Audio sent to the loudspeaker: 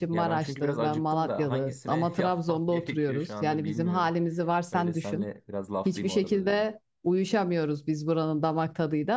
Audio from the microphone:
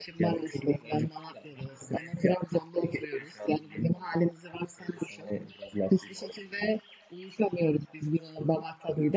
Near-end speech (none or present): none